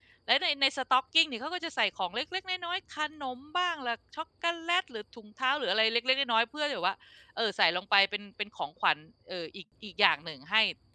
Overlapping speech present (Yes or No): No